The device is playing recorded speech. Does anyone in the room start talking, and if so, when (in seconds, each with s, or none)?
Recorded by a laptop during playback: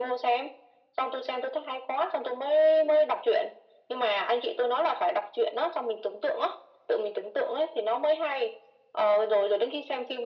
none